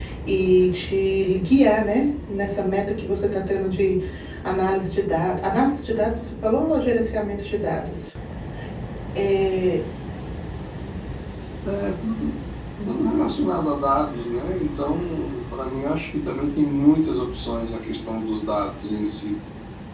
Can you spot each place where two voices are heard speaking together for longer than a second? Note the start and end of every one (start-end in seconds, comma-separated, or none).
none